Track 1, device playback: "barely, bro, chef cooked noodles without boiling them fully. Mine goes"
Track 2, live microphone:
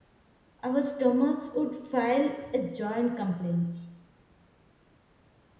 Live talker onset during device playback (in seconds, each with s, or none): 0.6 s